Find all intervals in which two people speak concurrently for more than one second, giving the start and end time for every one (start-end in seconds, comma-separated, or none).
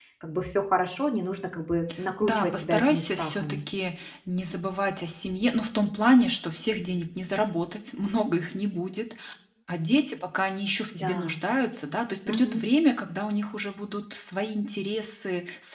2.2-3.6